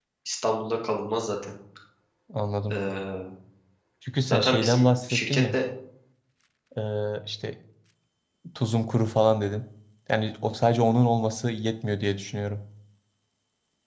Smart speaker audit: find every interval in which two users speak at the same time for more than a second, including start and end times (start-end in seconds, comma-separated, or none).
4.3-5.6